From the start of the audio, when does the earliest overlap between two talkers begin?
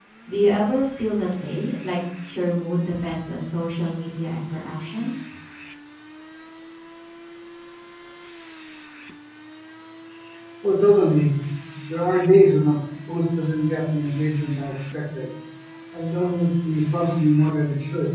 none

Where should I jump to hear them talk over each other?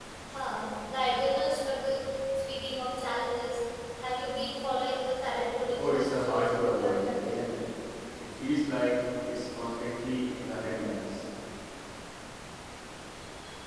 5.6 s

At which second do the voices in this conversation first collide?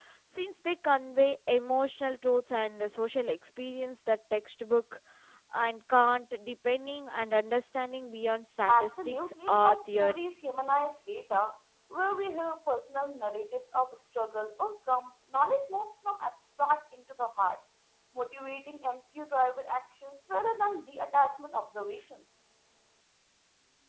8.7 s

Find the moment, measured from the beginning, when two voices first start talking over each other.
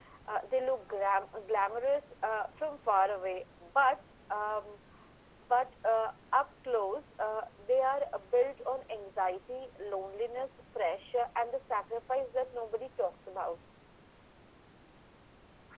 none

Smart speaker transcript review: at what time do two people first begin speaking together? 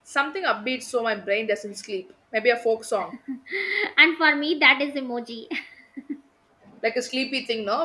none

